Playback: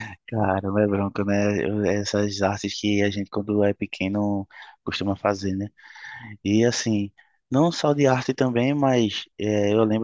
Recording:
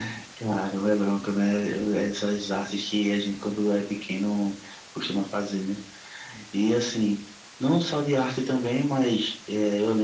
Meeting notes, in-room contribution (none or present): none